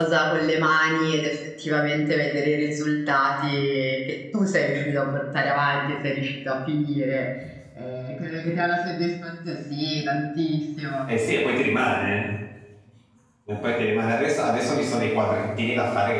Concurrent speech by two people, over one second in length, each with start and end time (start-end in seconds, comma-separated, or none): none